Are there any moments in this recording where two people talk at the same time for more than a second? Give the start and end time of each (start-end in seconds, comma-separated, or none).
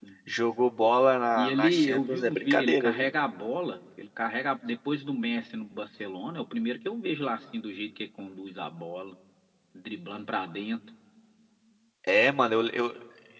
1.4-3.1